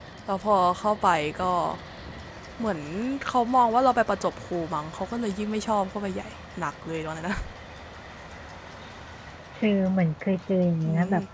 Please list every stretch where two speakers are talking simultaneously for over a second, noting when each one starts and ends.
none

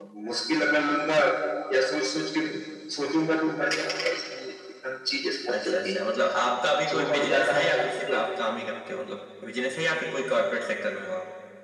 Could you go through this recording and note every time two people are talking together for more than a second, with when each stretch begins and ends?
6.9-8.2

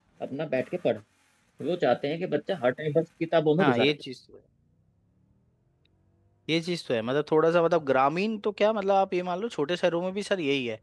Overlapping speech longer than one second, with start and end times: none

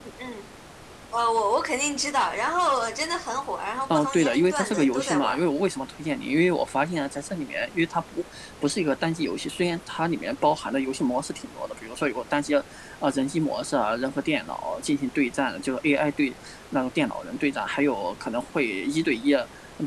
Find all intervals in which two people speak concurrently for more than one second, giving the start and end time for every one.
3.9-5.4

